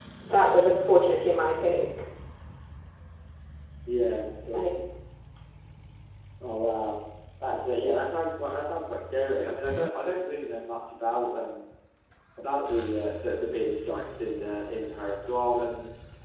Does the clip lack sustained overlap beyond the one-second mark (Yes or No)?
Yes